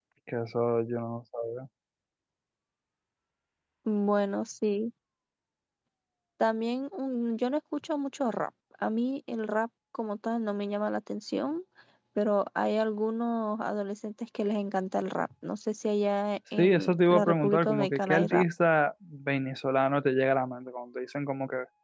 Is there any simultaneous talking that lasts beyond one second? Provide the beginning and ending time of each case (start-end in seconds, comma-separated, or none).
16.6-18.4